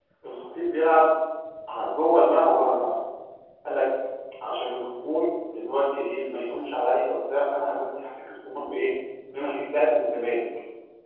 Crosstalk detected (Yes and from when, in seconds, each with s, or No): No